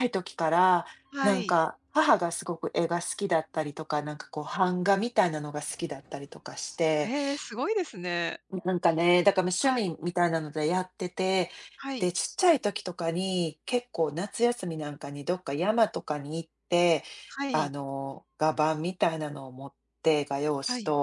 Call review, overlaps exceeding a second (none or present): none